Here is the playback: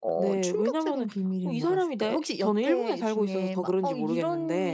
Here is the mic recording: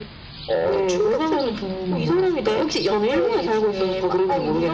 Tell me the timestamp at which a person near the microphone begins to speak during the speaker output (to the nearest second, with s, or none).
none